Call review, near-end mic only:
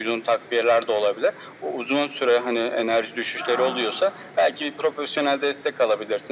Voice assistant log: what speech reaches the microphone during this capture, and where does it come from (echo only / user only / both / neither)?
both